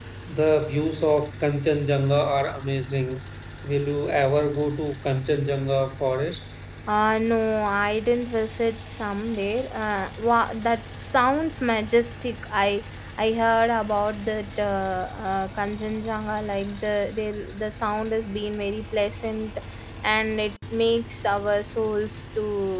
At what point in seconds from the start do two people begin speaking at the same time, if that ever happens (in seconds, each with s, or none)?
none